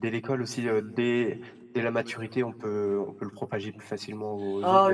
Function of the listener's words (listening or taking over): taking over